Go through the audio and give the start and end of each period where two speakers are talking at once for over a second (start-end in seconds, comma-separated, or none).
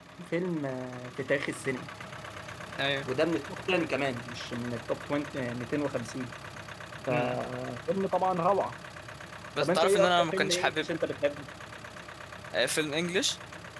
9.6-10.8